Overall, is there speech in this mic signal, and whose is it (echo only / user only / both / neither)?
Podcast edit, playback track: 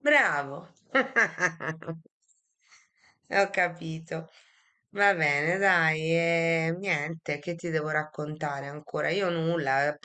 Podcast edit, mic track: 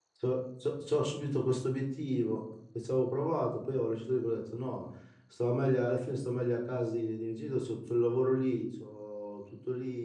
user only